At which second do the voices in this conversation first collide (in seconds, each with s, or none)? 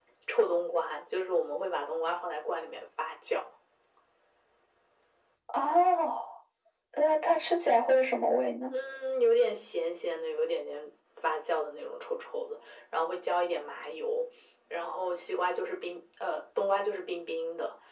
none